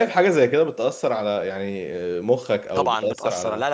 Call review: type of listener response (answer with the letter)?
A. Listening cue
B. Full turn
B